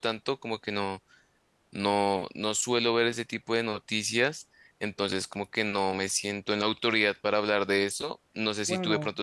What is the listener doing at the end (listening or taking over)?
listening